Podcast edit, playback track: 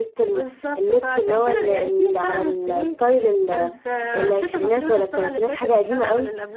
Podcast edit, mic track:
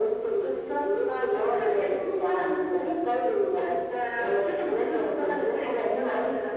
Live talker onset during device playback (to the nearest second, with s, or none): none